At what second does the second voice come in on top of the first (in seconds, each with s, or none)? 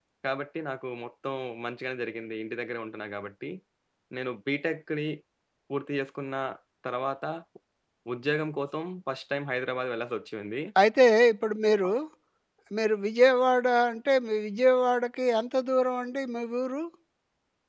none